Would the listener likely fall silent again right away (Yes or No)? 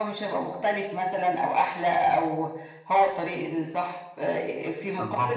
Yes